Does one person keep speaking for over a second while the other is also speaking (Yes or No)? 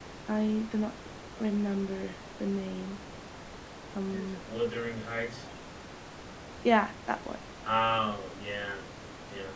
No